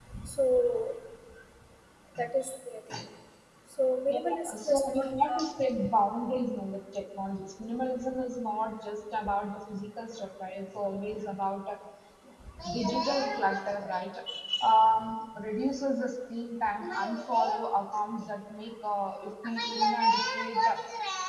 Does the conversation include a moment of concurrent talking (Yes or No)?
Yes